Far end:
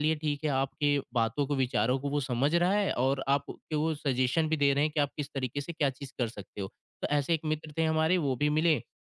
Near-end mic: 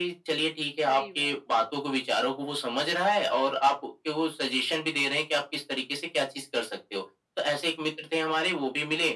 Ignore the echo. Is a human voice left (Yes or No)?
Yes